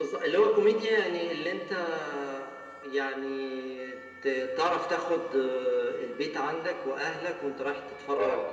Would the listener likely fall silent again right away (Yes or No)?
Yes